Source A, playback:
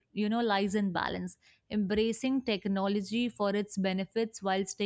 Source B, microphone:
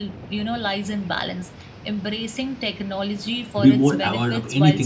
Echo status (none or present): present